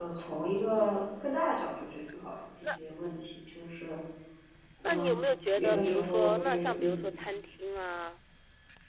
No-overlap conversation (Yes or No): No